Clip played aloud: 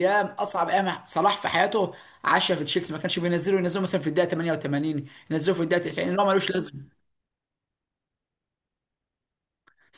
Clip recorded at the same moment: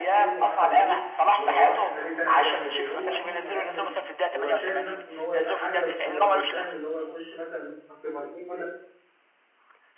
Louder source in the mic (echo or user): echo